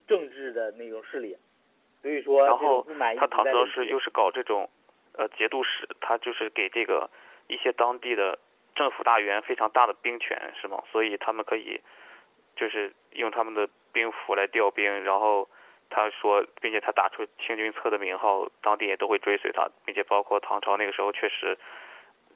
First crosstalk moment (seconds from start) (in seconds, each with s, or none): 2.5 s